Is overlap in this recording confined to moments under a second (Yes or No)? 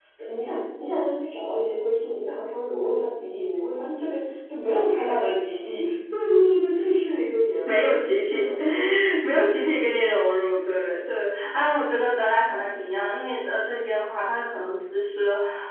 Yes